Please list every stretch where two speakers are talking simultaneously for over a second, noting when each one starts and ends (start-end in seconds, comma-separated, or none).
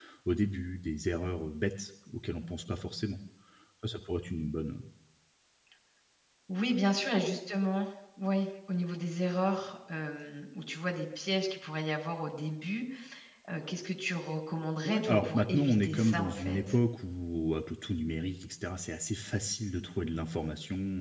14.8-16.6